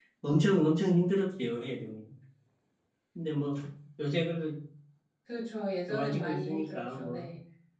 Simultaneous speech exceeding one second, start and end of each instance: 5.9-7.3

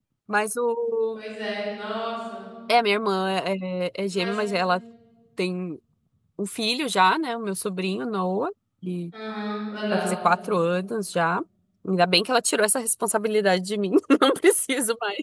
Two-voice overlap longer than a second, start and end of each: none

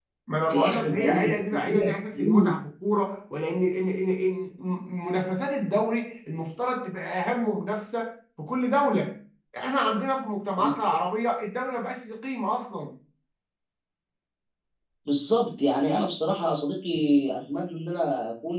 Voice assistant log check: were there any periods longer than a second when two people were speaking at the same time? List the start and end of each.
0.5-1.9

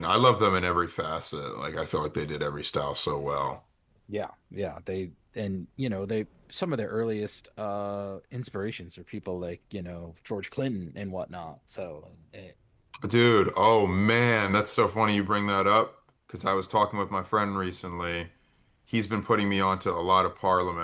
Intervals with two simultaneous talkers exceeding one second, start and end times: none

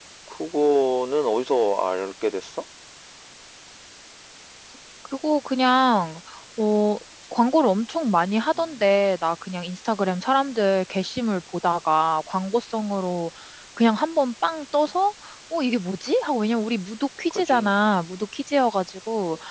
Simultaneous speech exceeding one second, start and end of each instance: none

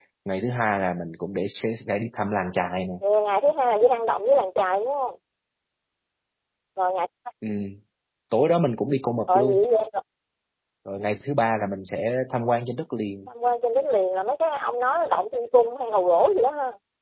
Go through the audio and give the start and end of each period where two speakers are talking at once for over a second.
none

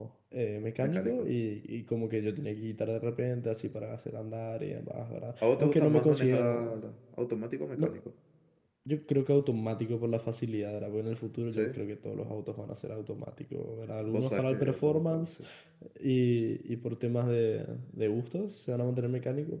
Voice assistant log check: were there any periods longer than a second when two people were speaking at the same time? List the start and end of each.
5.4-6.8, 14.0-15.2

